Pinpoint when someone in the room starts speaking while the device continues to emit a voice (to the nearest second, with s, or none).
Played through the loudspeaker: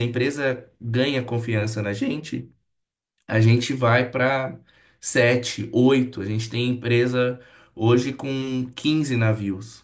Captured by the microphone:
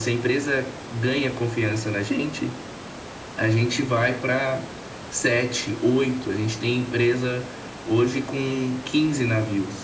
none